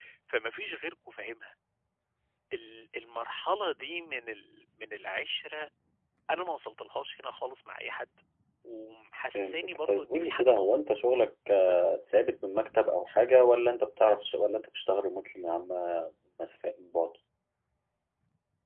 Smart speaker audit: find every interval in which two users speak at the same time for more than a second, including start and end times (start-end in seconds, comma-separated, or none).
9.3-10.8